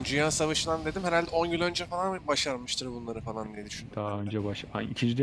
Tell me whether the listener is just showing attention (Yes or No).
No